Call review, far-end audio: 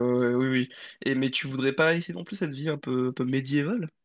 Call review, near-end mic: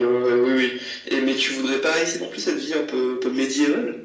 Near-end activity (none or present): none